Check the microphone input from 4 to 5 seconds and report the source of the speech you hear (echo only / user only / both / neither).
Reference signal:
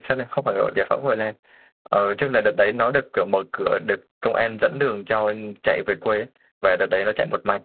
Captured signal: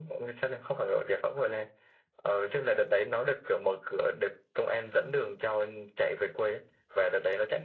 echo only